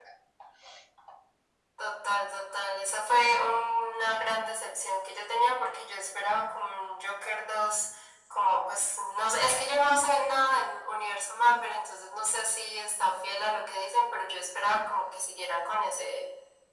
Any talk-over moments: No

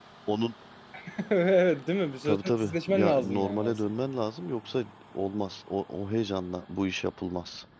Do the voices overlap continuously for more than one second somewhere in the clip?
Yes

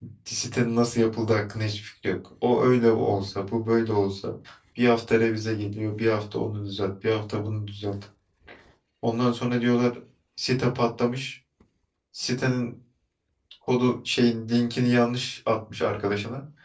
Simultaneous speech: No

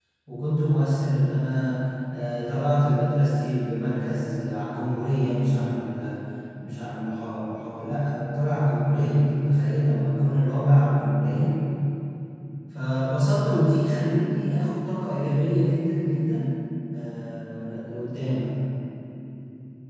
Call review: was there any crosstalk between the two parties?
No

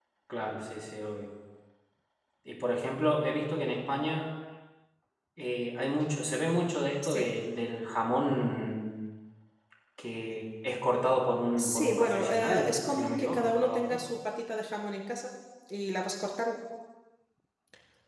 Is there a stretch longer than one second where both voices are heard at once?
Yes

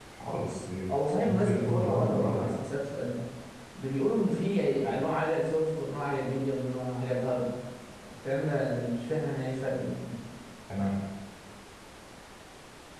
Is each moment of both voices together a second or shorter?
No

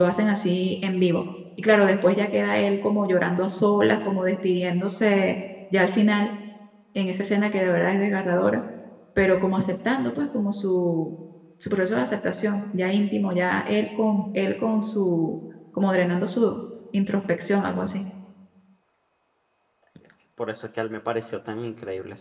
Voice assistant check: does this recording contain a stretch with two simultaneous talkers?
No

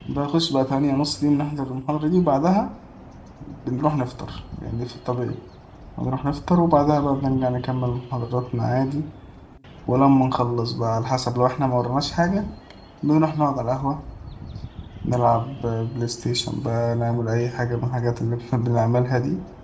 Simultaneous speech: No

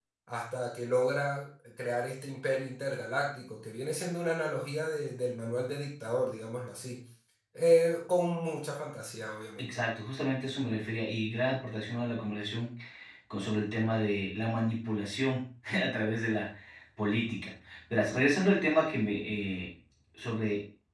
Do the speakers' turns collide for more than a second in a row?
No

